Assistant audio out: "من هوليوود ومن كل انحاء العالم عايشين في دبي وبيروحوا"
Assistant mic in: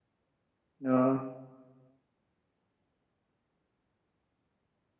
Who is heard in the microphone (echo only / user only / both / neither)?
user only